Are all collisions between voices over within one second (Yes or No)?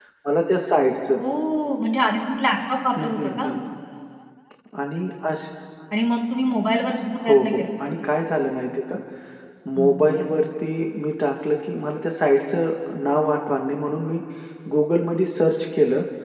Yes